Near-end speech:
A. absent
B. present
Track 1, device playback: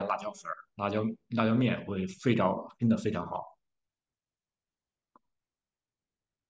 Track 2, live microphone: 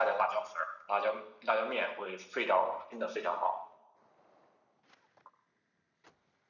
A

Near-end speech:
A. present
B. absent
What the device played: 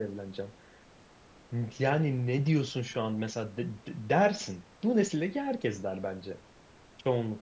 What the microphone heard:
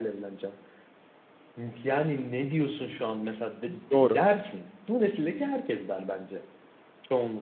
A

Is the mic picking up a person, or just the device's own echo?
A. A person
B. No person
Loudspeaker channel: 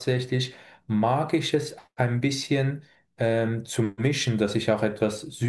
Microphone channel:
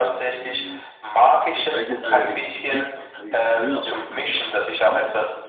A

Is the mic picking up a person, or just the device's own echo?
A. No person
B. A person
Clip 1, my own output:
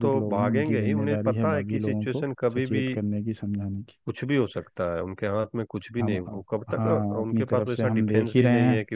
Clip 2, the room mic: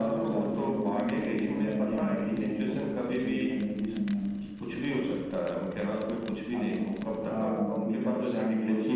A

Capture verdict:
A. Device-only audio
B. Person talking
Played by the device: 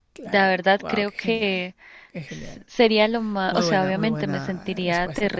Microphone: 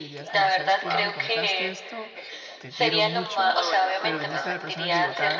B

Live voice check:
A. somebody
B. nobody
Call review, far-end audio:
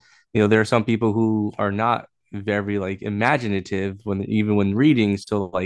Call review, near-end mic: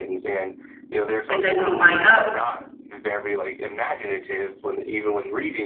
A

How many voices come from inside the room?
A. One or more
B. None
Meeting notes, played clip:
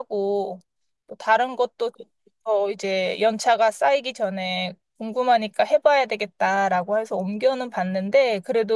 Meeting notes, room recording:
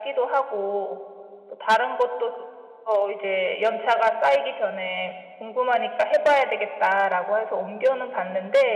B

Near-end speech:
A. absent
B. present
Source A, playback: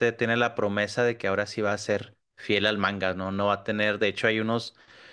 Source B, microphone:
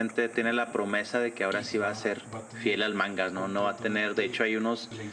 B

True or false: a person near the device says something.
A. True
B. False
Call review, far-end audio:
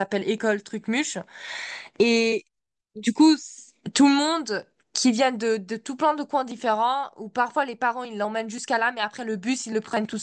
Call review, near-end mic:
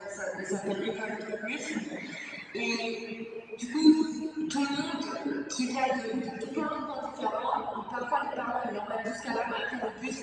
B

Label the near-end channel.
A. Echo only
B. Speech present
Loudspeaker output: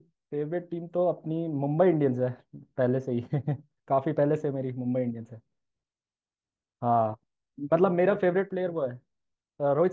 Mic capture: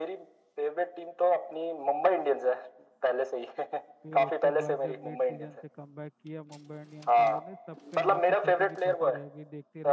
B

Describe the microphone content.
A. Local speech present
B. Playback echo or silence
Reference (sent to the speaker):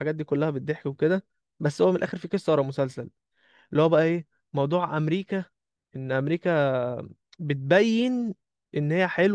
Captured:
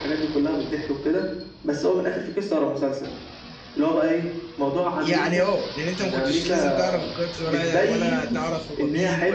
A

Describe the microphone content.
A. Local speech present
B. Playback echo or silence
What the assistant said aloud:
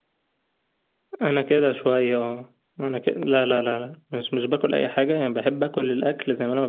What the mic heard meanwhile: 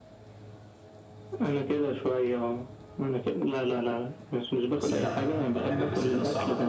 A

